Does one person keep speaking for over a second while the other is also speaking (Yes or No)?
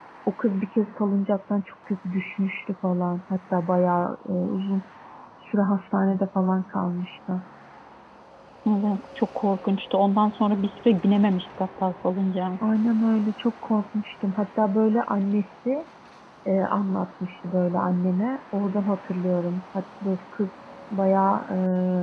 No